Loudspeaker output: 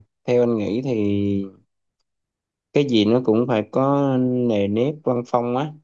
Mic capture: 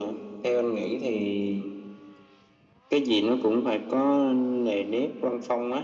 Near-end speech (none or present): none